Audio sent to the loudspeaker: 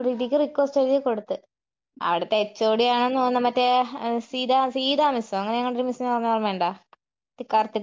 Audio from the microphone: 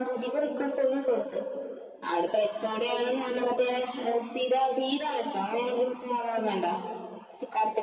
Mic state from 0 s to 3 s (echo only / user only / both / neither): echo only